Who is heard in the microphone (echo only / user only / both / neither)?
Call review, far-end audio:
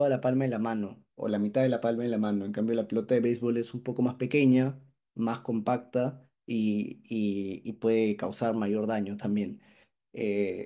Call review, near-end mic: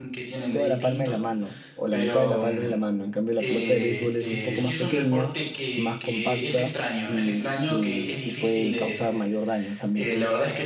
both